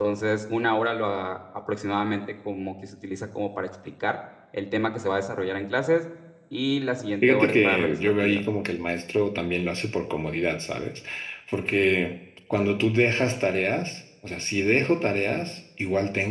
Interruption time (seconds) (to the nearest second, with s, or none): 7 s